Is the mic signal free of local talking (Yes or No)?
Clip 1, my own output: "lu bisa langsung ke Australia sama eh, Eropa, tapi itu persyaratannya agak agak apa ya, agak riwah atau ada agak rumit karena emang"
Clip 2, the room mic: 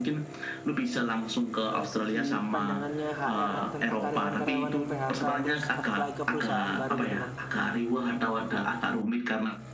No